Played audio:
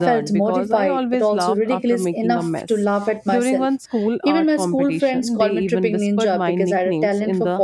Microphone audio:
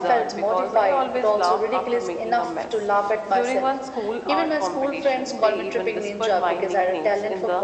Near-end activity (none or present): none